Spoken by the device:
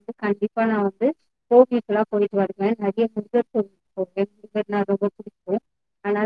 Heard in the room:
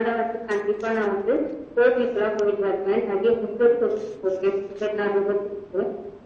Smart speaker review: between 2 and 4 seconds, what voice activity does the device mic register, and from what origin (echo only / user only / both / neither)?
echo only